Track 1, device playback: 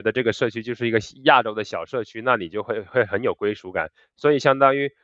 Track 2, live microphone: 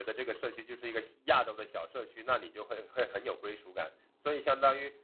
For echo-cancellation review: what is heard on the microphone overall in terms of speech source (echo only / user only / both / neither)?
echo only